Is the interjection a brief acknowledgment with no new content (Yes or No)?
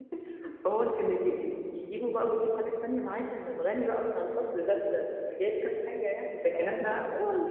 Yes